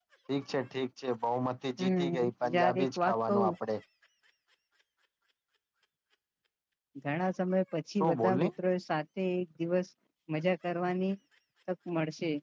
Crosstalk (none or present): present